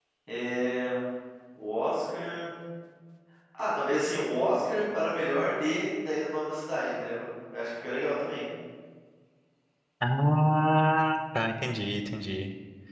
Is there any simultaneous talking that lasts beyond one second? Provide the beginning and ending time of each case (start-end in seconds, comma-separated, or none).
none